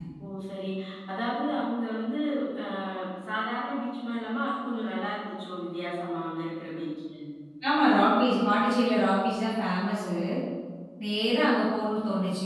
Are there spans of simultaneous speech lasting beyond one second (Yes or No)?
No